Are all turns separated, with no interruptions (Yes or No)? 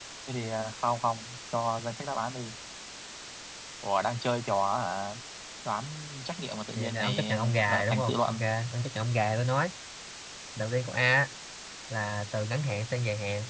No